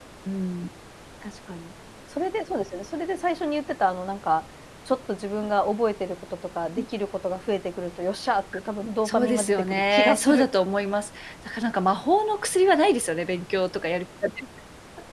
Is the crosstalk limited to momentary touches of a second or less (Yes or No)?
No